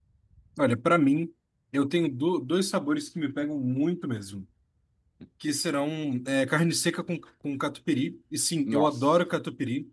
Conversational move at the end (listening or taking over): listening